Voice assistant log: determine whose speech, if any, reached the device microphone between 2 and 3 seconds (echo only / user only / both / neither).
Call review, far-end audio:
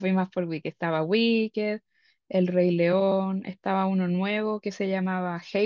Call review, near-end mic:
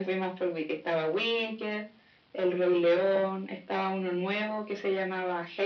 echo only